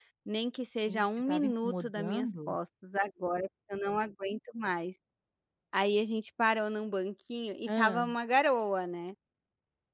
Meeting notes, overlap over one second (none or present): present